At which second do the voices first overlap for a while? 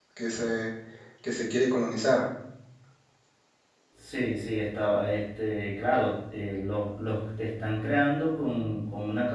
none

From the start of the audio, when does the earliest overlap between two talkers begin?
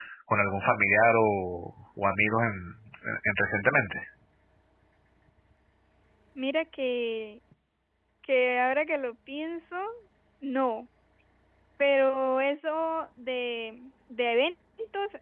none

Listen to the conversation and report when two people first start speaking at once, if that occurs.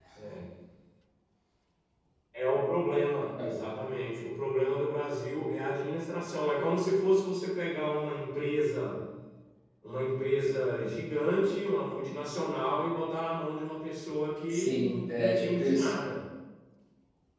15 s

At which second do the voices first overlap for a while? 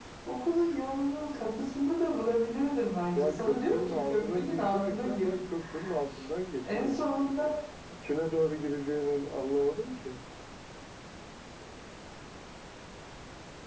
3 s

